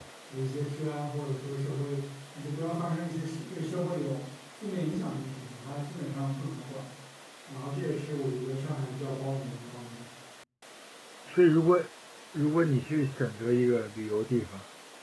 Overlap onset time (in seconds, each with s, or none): none